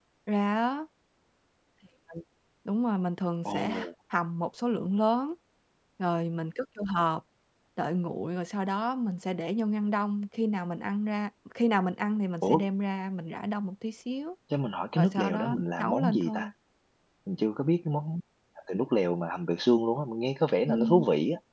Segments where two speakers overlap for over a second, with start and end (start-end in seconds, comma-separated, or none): 14.9-16.4